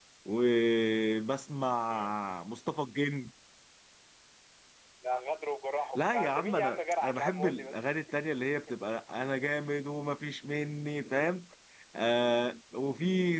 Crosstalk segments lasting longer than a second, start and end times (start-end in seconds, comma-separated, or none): 6.0-7.9